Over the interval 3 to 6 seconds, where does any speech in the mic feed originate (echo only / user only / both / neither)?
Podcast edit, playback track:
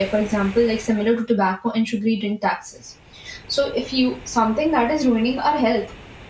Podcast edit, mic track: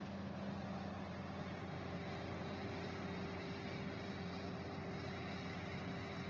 neither